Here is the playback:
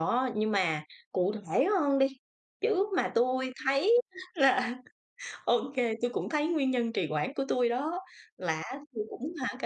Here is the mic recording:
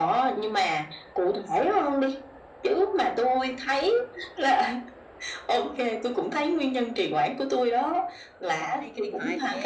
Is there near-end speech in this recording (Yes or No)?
Yes